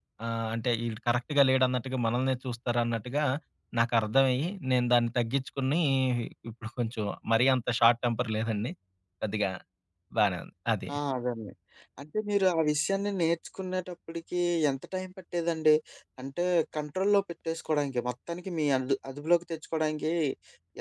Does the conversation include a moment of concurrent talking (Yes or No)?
No